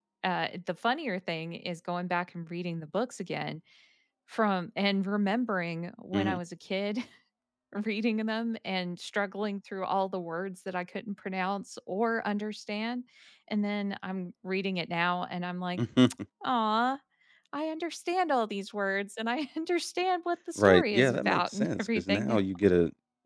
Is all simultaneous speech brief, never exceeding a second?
No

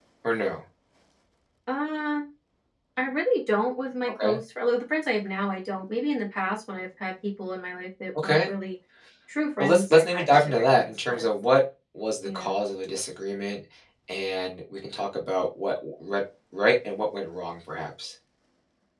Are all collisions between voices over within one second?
No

